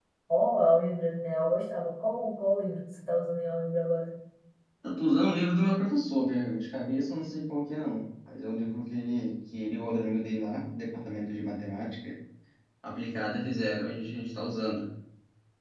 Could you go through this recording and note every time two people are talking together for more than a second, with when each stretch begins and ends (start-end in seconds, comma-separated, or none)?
none